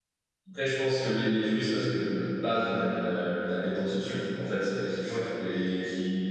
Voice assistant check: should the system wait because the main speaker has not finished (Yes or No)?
Yes